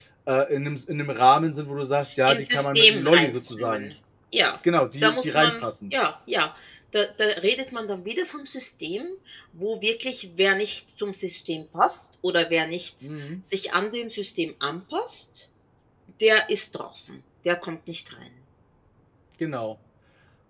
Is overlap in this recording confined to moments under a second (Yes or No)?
No